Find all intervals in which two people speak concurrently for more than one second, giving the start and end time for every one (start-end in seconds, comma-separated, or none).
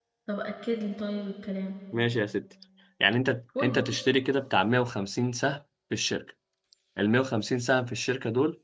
none